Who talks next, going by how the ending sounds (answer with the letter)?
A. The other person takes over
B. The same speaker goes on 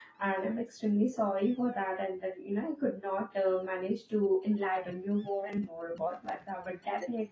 A